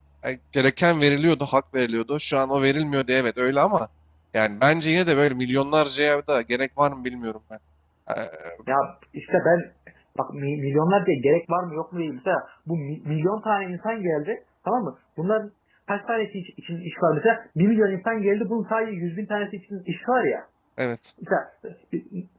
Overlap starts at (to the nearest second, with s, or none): none